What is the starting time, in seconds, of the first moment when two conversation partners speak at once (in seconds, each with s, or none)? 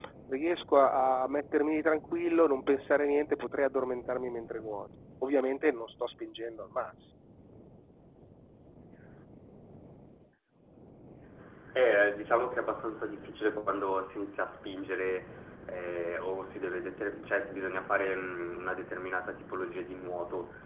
none